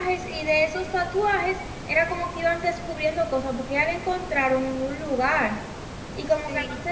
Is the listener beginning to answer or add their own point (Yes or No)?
Yes